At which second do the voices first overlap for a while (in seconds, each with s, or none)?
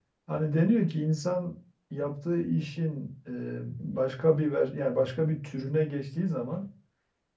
none